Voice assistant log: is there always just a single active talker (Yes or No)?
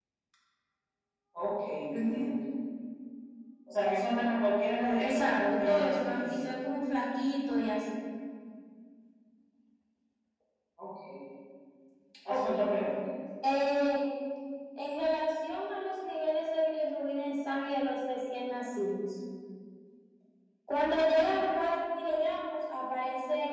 No